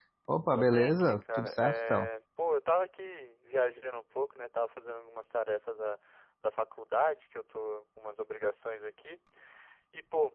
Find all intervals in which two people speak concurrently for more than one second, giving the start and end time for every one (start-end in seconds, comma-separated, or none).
0.6-2.1